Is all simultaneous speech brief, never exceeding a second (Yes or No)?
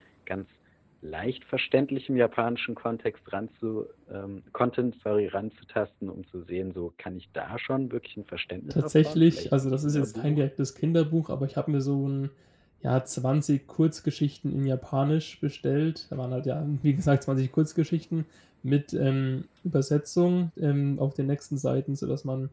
No